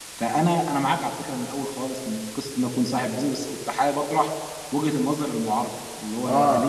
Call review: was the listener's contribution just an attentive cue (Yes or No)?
Yes